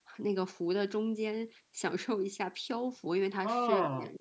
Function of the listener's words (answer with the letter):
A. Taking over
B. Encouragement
A